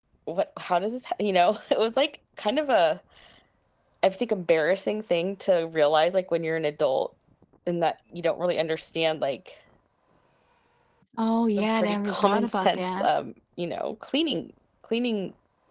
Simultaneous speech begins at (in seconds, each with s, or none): 11.6 s